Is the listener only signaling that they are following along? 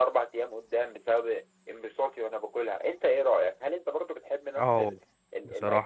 No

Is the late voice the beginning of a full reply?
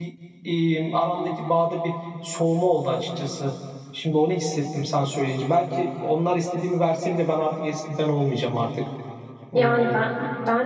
Yes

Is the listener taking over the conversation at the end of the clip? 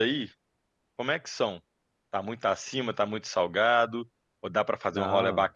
No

